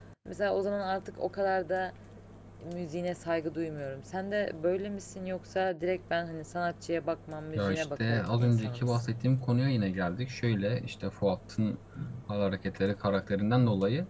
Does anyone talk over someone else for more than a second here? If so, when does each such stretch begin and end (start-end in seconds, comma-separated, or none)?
7.5-9.1